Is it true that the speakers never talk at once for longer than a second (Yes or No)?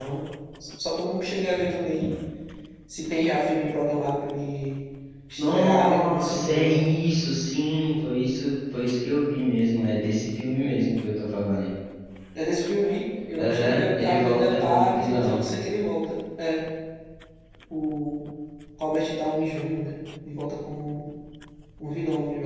No